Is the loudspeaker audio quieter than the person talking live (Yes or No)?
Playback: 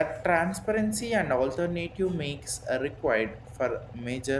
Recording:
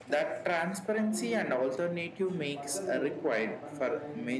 No